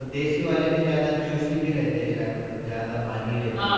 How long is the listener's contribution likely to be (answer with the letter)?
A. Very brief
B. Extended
B